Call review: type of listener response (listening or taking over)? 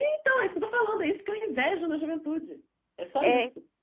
taking over